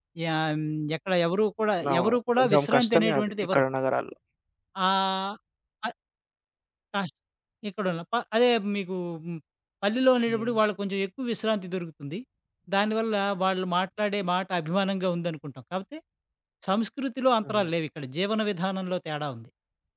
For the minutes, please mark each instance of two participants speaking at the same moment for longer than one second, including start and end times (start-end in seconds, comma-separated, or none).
1.9-3.6